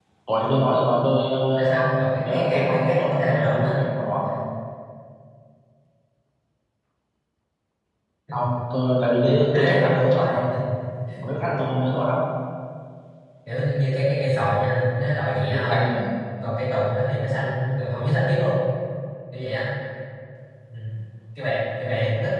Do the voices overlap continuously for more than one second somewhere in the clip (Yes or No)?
Yes